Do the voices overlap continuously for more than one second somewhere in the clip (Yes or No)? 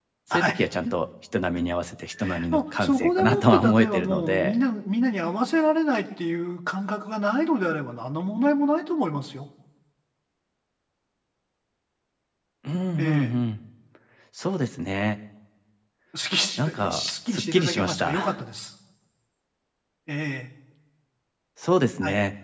Yes